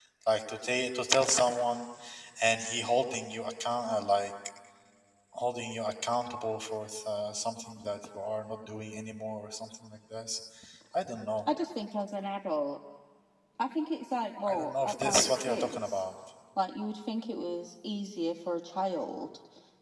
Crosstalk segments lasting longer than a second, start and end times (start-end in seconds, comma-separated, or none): 14.5-16.0